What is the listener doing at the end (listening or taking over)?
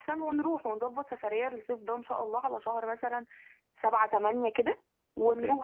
taking over